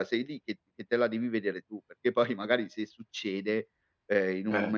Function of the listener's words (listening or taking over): listening